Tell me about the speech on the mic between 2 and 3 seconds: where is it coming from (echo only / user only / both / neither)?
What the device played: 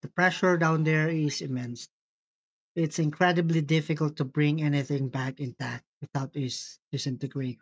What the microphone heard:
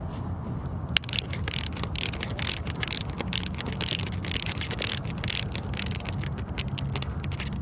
neither